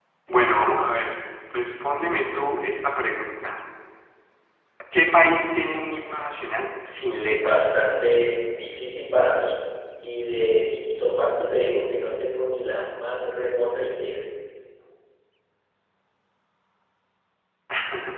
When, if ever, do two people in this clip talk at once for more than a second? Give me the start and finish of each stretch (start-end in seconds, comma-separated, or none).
none